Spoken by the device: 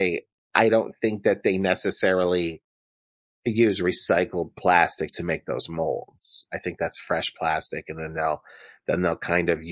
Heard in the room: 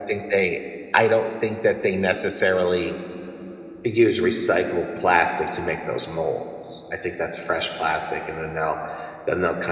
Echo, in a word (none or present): present